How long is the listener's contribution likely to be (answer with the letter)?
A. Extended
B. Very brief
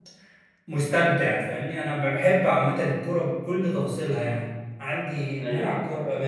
B